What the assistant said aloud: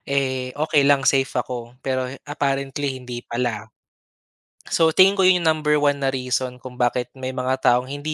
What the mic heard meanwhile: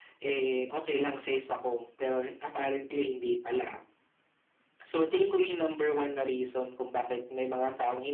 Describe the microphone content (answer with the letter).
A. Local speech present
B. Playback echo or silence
B